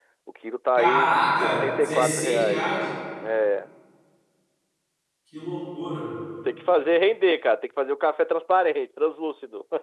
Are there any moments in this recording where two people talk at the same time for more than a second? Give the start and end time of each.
0.8-2.7

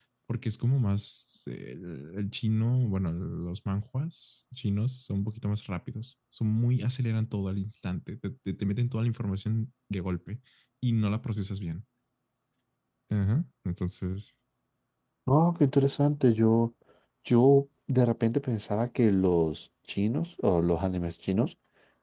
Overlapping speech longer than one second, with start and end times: none

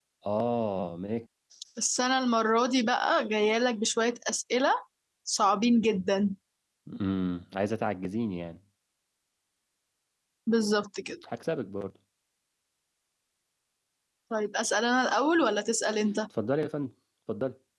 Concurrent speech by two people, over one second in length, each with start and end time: none

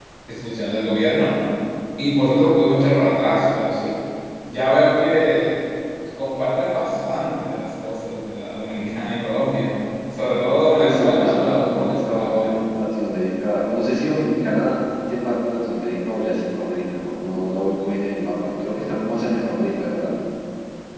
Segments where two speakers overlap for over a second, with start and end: 10.8-12.5

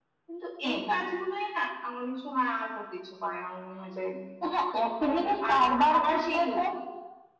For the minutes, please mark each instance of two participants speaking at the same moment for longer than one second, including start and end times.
5.0-6.6

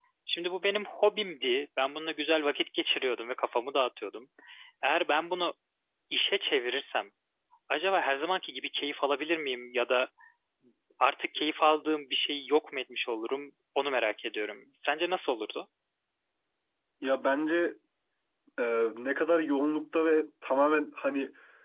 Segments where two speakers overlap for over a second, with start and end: none

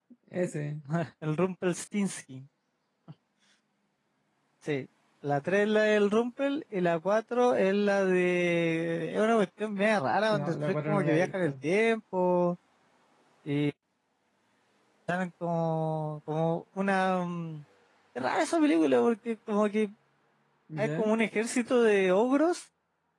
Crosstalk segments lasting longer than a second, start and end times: 10.3-11.5

